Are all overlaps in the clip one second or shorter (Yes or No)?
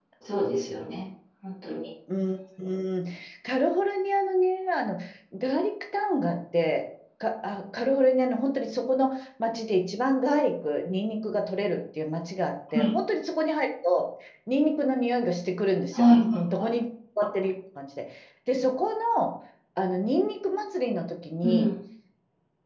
Yes